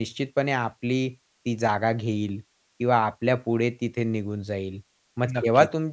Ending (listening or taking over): listening